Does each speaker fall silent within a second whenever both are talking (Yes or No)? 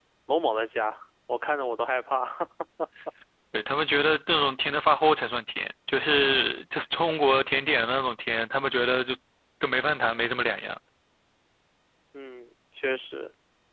Yes